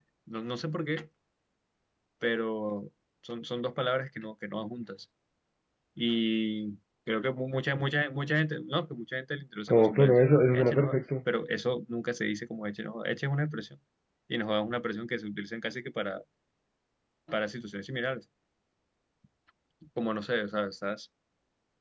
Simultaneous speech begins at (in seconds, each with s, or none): 9.7 s